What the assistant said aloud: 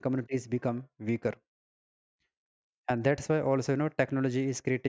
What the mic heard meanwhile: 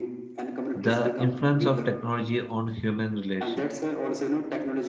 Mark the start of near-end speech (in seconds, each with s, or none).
0.7 s